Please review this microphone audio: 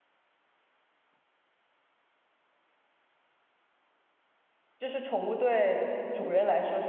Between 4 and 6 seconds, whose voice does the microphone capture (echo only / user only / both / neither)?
user only